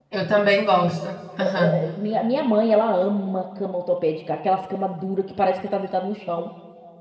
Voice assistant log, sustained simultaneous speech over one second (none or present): none